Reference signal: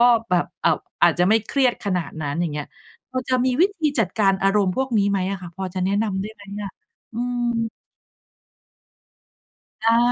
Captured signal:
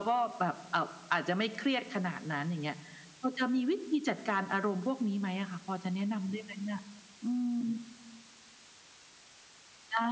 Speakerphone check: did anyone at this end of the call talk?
No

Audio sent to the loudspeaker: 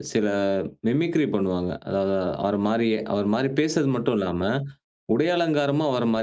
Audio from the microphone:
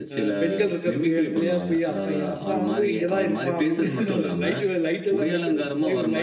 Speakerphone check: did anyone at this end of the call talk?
Yes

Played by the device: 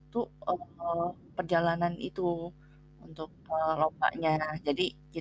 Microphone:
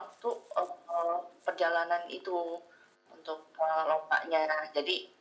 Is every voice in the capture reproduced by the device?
Yes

